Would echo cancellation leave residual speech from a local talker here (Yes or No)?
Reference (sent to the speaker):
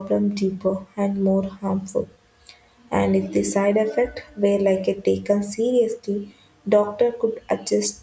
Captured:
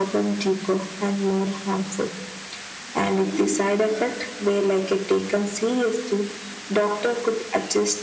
No